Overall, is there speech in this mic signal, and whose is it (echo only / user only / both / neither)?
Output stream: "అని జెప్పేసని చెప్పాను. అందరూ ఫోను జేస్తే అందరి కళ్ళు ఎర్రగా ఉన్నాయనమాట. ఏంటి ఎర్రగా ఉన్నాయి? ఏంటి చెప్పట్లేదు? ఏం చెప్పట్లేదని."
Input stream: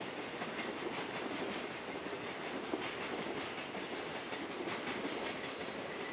neither